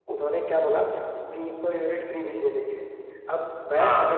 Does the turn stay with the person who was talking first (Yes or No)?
Yes